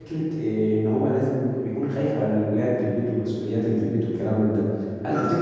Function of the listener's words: listening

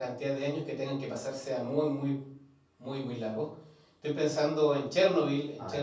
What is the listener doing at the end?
listening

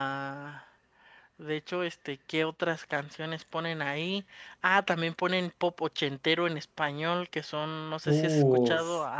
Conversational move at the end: listening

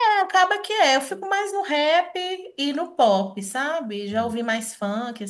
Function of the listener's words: listening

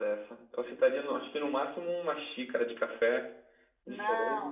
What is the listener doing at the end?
taking over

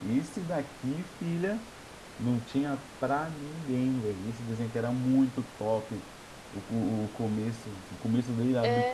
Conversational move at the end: listening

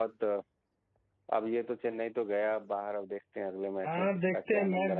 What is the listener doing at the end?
taking over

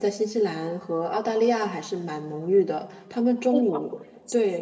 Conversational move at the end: listening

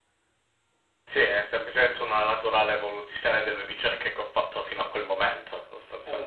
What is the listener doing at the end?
taking over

